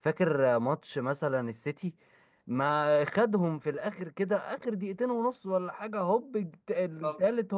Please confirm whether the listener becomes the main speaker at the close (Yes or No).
No